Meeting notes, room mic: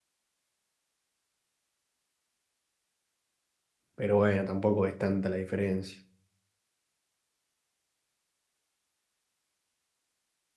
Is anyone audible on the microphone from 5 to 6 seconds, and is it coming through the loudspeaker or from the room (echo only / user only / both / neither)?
user only